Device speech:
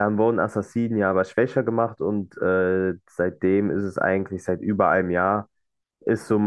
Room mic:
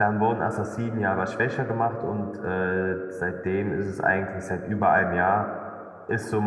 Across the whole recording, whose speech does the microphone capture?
echo only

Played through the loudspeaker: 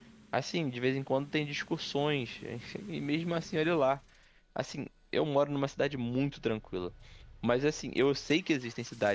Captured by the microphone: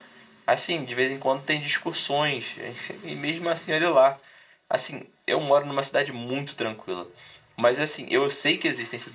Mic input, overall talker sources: echo only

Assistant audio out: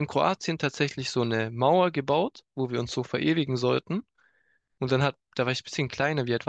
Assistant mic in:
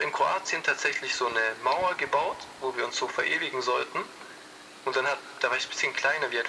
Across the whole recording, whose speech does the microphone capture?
echo only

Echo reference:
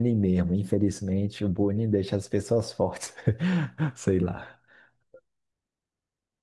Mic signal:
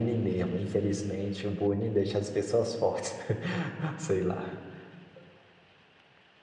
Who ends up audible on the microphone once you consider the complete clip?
echo only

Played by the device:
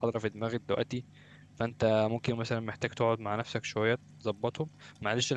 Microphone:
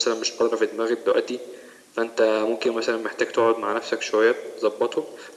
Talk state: echo only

